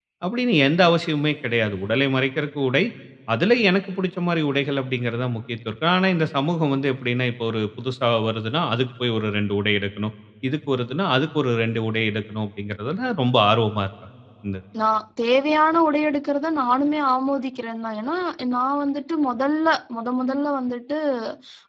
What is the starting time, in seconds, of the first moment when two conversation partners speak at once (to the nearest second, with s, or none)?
none